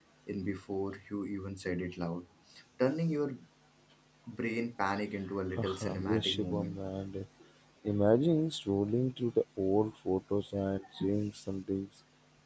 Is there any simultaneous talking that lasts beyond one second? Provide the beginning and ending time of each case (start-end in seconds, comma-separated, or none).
5.6-6.8